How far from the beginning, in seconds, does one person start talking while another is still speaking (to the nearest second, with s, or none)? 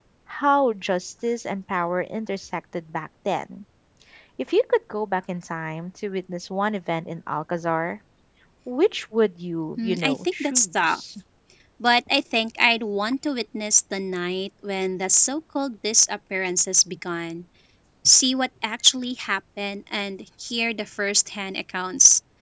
10 s